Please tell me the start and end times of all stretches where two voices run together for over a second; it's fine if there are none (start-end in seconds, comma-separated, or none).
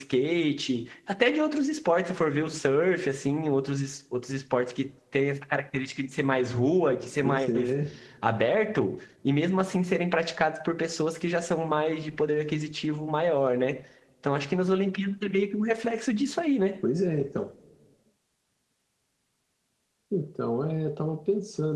none